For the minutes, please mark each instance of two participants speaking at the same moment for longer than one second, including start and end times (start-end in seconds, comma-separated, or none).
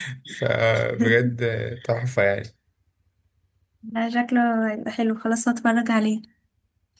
none